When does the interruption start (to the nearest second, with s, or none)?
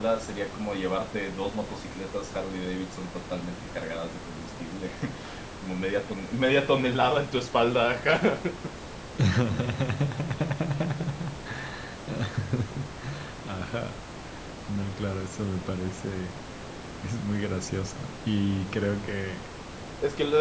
none